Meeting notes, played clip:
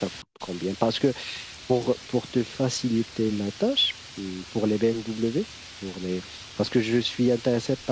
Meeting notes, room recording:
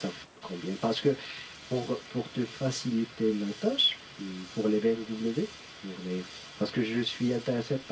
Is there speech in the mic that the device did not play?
No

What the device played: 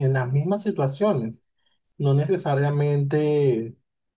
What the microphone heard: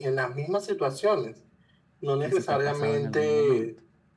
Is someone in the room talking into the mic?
Yes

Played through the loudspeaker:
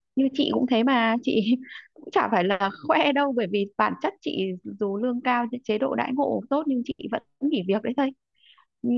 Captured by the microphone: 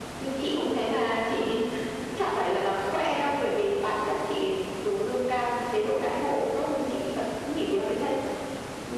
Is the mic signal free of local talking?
Yes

